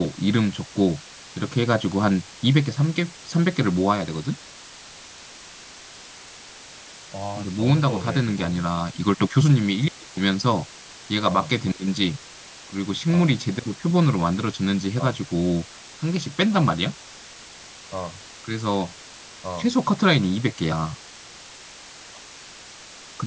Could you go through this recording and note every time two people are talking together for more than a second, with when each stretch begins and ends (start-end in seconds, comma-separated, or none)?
7.4-8.6